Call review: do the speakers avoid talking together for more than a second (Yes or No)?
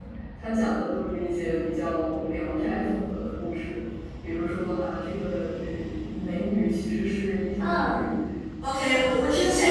Yes